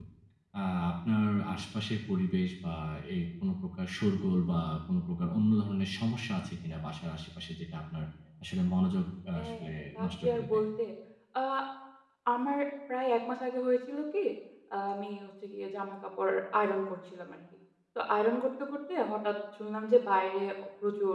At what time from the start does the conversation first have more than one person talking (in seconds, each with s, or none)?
9.4 s